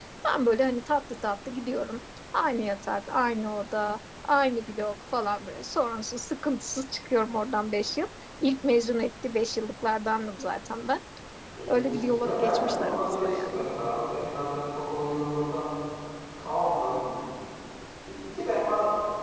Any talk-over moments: Yes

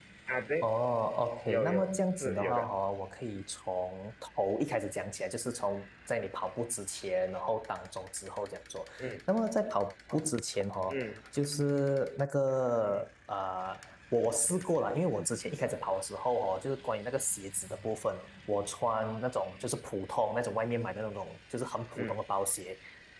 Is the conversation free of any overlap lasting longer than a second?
No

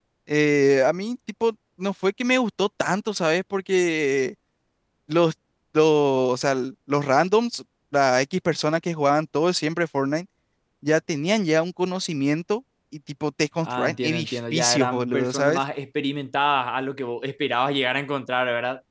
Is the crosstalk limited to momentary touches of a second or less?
No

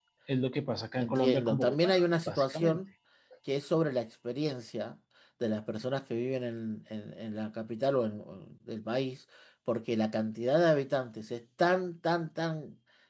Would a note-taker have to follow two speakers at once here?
Yes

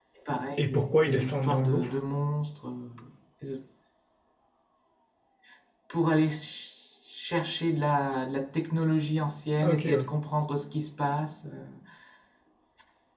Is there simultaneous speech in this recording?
Yes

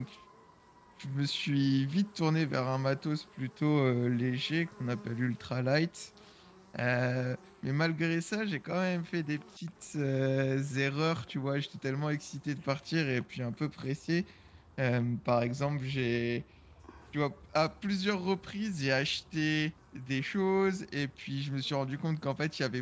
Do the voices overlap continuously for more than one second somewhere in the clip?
No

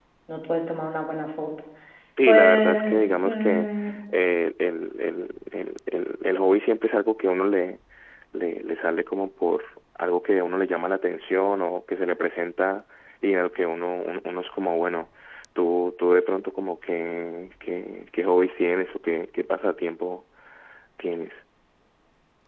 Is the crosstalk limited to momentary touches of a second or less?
No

